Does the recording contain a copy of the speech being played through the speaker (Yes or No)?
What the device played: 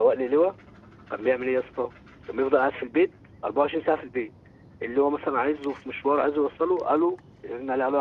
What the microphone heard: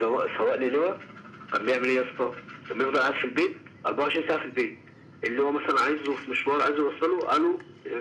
Yes